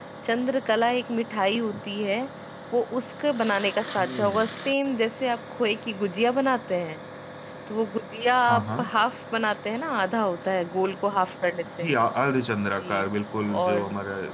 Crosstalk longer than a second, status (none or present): none